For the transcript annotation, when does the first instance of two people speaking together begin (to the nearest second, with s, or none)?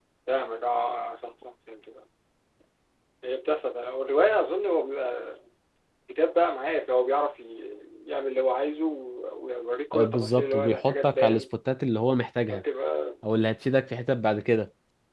10 s